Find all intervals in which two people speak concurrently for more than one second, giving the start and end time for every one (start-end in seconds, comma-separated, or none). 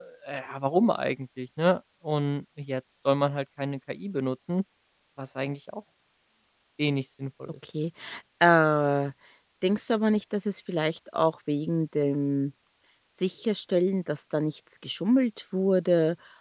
none